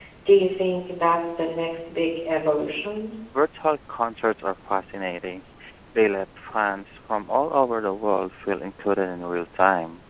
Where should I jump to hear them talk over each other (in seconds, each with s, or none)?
none